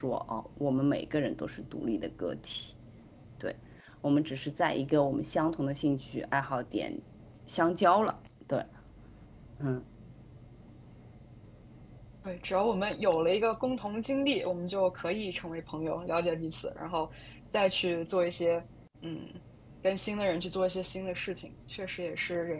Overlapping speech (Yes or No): No